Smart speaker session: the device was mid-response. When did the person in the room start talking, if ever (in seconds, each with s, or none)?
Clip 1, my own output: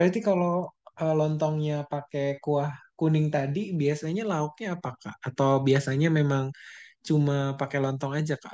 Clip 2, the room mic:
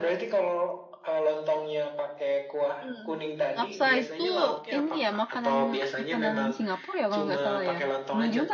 2.8 s